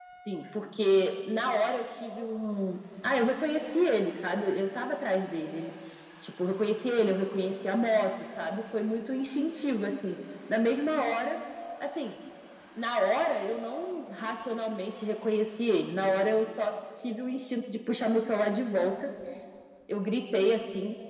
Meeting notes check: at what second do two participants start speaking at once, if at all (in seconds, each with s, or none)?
none